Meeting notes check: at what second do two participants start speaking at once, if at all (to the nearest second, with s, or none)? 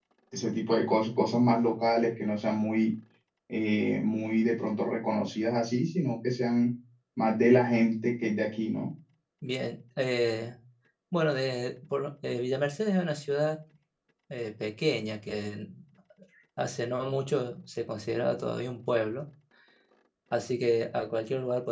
none